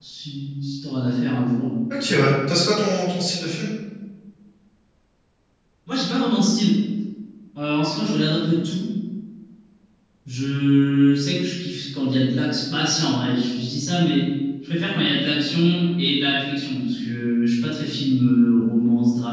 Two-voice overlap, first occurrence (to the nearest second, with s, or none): none